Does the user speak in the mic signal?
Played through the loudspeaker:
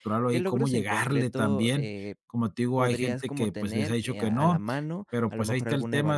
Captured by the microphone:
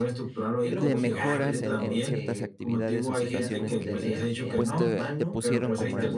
Yes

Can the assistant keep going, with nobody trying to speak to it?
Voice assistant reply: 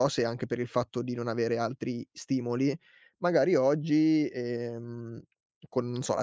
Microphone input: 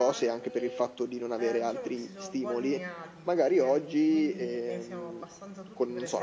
No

